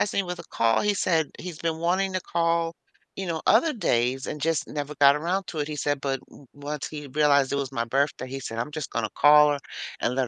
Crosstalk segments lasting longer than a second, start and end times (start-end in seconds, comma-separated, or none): none